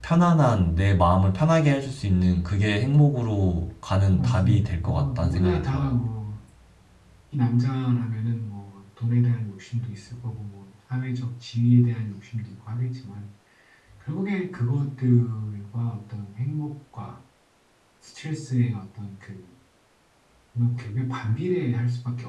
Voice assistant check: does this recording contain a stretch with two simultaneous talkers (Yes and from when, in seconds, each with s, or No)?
Yes, from 4.1 s